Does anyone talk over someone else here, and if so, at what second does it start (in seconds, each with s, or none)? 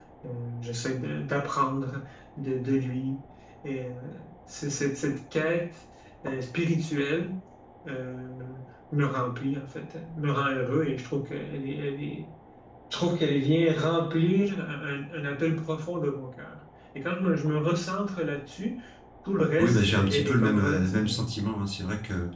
19.6 s